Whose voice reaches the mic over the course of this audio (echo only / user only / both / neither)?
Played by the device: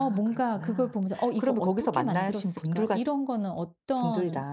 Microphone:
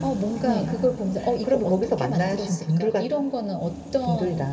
both